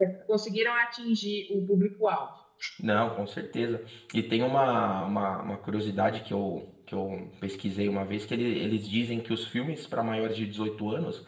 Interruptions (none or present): none